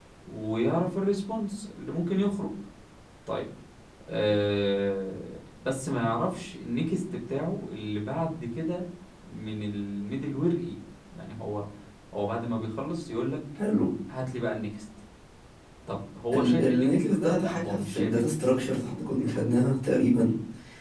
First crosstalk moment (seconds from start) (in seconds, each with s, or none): 16.3 s